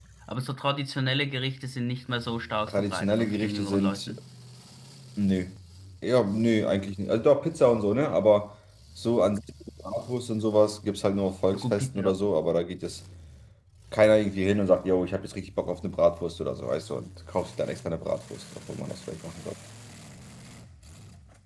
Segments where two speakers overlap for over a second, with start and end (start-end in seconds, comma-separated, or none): 2.7-4.1